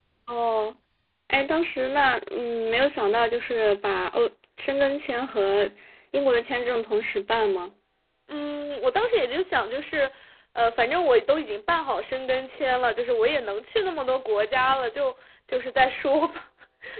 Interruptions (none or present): none